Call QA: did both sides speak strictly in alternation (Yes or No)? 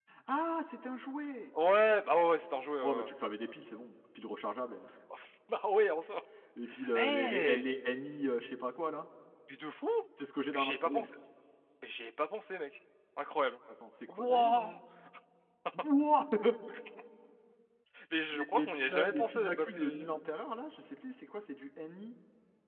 No